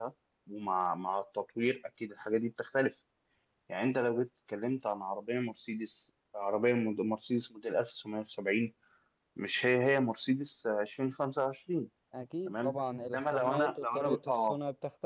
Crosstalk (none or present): present